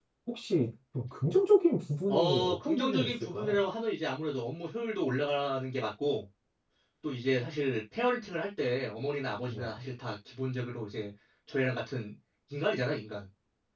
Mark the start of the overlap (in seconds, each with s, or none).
2.1 s